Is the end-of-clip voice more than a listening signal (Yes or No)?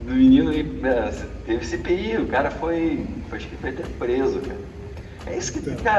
No